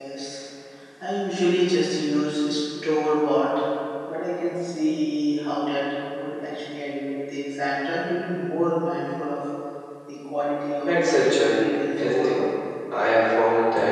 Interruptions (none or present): present